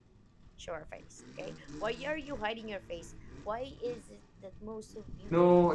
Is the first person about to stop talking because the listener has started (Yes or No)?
Yes